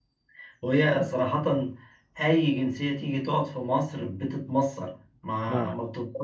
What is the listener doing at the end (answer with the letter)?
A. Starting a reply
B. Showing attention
B